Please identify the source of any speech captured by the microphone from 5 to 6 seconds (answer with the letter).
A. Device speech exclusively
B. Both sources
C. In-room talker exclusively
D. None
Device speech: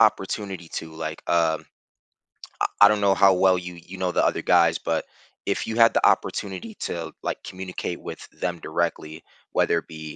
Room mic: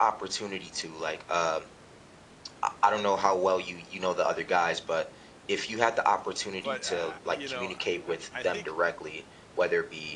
A